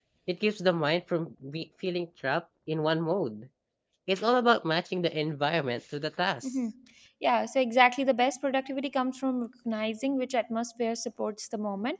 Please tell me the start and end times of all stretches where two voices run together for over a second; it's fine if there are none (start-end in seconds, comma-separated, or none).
none